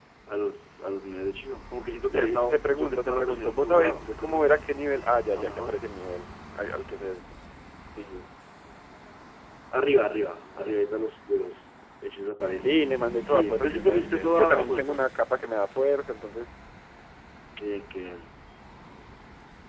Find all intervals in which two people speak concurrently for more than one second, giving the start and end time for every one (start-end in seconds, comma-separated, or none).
2.1-4.5, 13.2-15.0